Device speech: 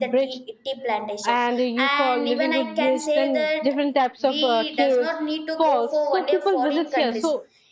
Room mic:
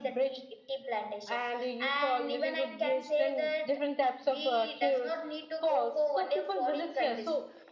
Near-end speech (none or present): none